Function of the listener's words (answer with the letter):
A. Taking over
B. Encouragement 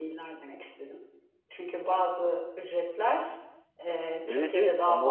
A